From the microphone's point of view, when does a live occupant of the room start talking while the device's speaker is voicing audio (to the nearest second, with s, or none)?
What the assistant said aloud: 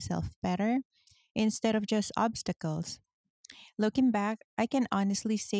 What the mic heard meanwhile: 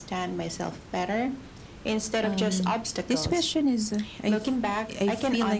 2 s